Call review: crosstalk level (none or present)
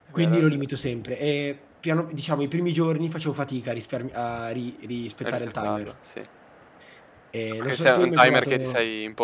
present